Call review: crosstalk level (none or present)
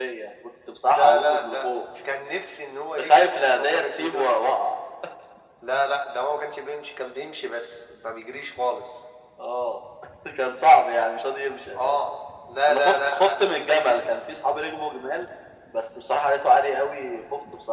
present